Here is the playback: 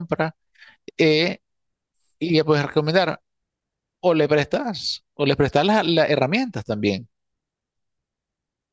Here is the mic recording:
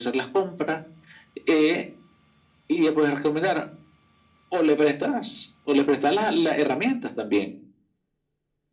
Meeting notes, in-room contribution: none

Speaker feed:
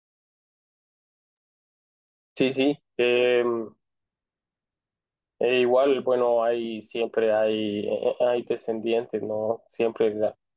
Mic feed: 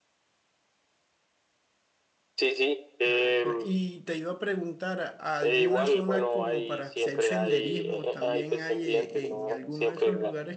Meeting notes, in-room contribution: present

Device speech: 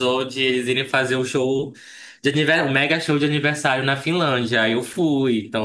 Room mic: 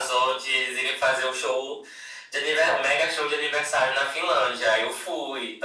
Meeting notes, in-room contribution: none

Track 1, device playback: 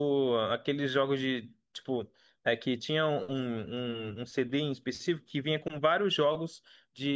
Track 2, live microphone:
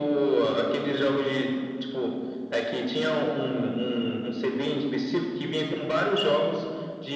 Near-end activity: none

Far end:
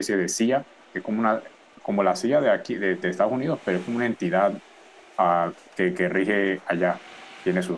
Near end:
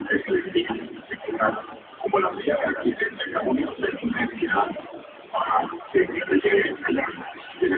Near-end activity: present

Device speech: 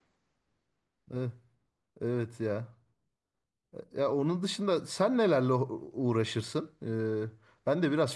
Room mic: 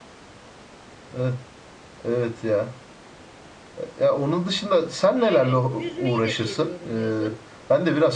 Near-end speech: present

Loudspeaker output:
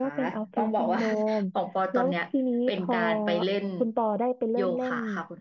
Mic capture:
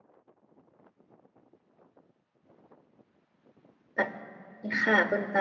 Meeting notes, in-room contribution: present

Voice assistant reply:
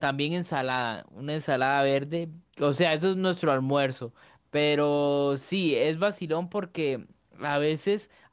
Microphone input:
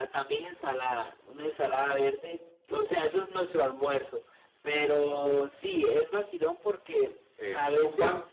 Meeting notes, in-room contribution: present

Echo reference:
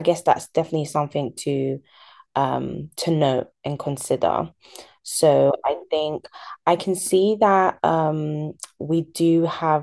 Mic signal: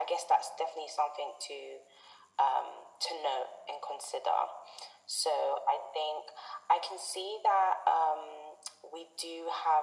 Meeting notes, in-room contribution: none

